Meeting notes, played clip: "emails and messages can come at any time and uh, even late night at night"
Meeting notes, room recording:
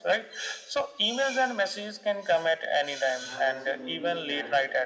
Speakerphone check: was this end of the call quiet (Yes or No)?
No